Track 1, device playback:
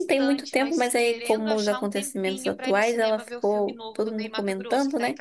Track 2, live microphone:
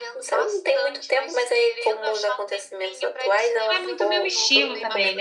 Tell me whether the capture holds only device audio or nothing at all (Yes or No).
No